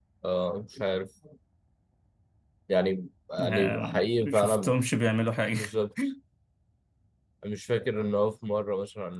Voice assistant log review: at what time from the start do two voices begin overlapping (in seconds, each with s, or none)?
3.4 s